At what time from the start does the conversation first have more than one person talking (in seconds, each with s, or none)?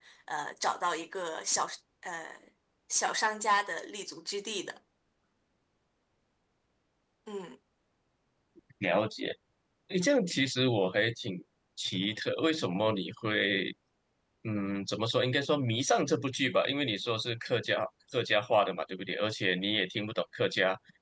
none